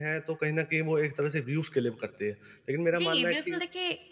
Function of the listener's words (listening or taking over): taking over